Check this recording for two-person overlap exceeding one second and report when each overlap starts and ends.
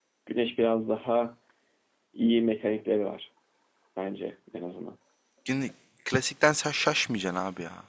none

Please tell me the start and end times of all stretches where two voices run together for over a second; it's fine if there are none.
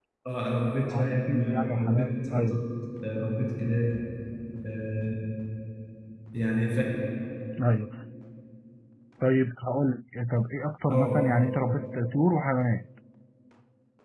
0.9-2.6

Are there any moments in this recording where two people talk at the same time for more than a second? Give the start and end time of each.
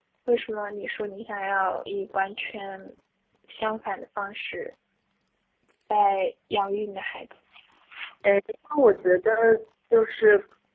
none

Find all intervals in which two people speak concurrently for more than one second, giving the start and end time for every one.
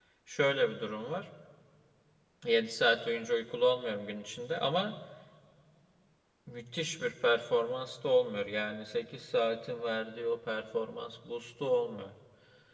none

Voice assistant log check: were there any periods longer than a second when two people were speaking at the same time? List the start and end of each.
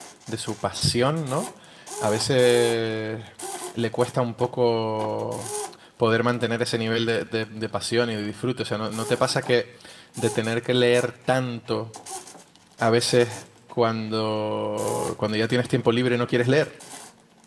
none

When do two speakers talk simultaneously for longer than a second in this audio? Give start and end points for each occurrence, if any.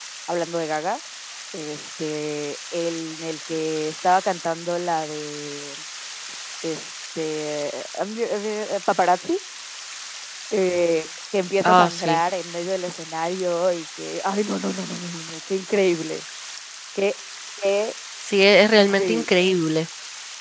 none

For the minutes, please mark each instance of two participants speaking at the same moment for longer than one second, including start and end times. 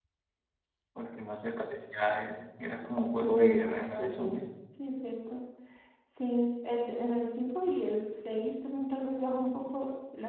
3.2-4.4

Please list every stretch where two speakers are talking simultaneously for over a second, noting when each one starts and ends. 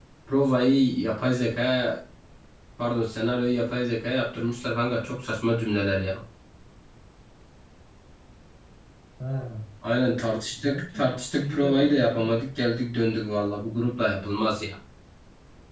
10.5-12.4

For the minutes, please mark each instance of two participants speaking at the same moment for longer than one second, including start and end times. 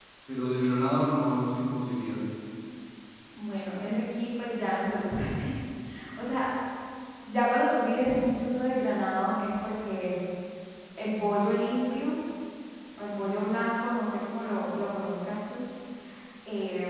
none

